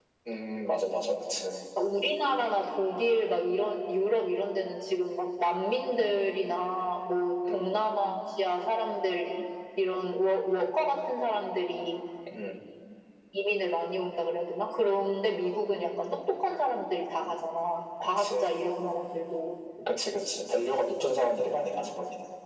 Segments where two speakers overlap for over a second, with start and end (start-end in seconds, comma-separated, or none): none